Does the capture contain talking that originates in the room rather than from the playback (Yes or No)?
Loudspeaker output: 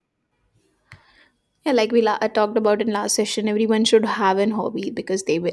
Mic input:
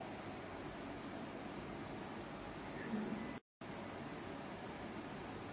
No